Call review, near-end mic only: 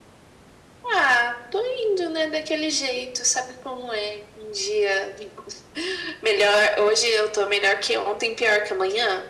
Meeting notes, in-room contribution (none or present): none